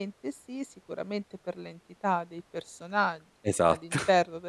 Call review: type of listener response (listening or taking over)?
listening